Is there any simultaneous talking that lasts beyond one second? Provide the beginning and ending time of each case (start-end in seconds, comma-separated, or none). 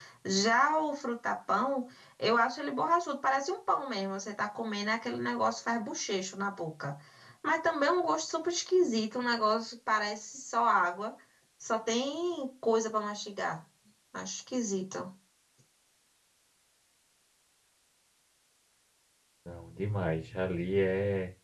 none